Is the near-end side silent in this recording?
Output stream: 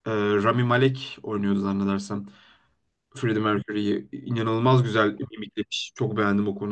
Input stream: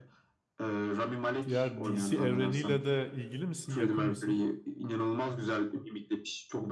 No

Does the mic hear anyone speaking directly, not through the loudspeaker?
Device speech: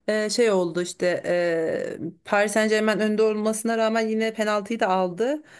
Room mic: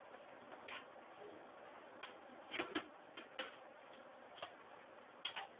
No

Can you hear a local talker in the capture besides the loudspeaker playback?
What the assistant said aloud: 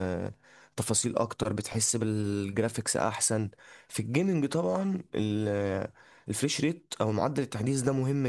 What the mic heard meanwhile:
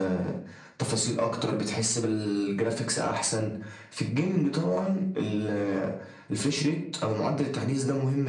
No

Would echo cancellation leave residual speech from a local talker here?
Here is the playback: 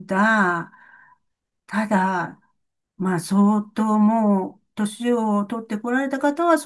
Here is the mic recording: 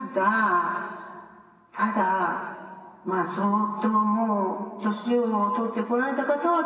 No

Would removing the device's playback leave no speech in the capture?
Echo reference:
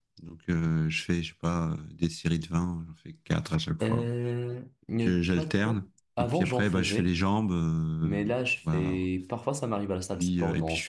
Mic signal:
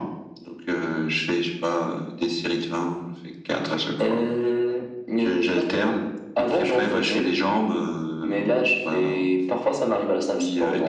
Yes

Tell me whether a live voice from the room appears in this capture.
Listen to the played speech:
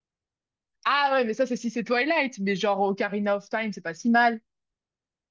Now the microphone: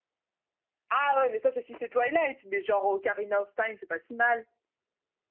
No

